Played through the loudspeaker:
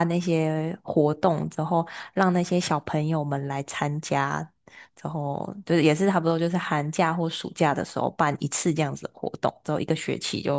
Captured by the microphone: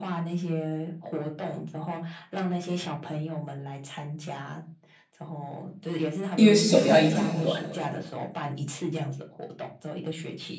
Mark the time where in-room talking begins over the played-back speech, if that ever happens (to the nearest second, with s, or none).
6 s